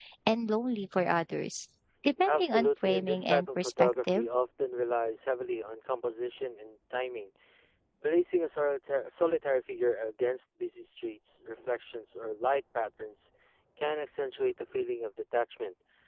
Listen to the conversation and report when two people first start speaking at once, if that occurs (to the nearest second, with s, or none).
2 s